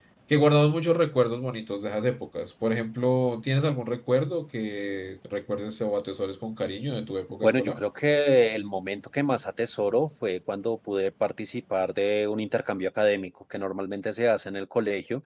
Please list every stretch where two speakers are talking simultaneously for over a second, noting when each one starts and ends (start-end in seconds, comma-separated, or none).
none